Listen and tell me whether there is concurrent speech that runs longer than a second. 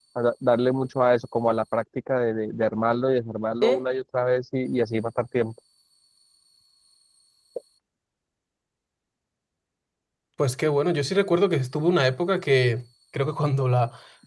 No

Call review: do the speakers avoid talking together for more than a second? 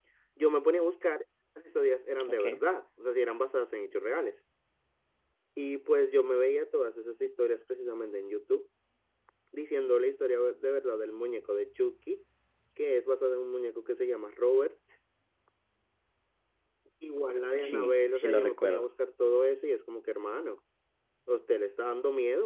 No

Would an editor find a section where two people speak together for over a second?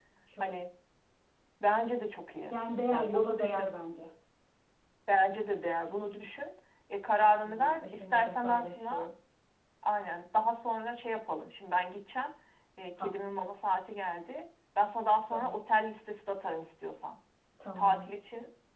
Yes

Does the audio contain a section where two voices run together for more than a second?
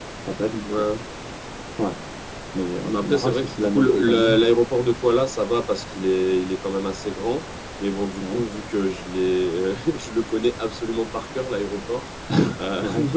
Yes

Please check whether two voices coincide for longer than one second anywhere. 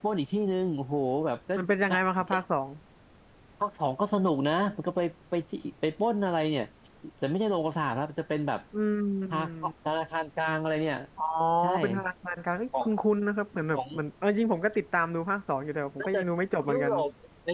No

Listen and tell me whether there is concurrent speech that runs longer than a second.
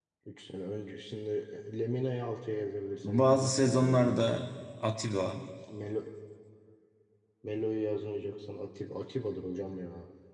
Yes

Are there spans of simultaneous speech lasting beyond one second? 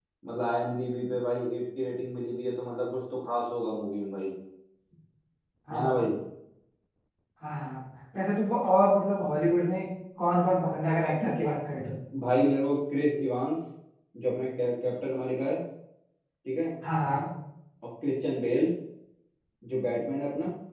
No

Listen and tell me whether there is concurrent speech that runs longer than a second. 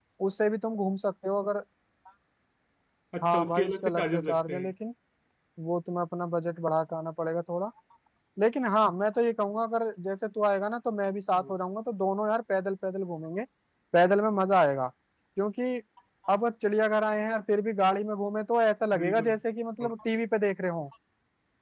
Yes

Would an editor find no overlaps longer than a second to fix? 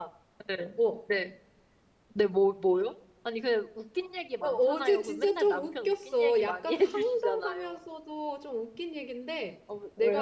No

